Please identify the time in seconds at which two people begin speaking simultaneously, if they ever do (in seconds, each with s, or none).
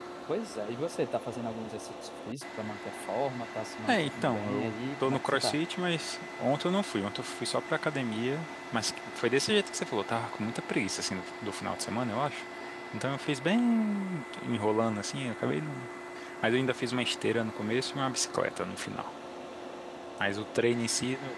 3.9 s